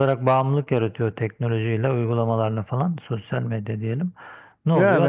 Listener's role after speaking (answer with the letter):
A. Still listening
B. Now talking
A